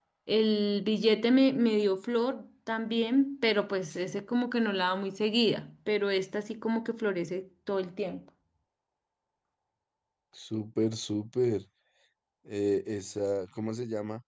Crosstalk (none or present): none